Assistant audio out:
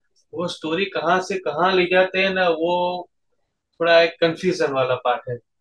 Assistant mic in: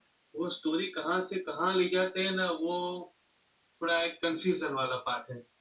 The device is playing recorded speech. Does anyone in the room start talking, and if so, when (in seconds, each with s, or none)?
none